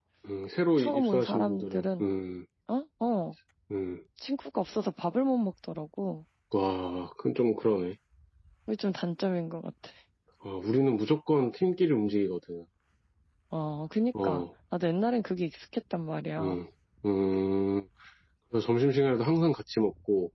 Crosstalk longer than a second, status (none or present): present